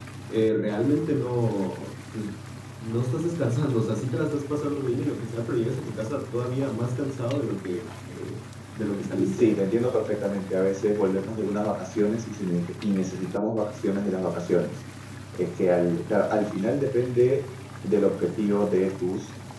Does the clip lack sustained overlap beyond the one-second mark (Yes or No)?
Yes